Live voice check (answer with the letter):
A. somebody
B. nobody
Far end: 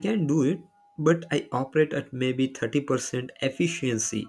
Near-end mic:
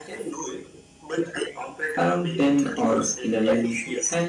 A